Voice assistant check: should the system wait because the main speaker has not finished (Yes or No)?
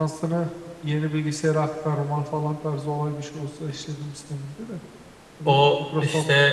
No